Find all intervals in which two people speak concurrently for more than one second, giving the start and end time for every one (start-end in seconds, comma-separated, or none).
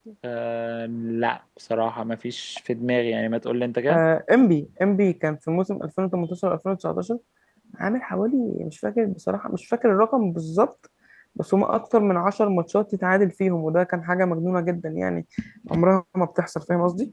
none